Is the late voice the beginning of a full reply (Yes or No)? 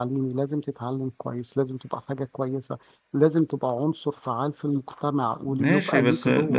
Yes